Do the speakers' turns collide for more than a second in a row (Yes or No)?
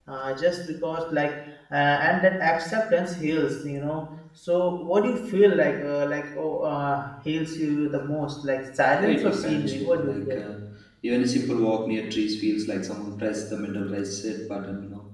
Yes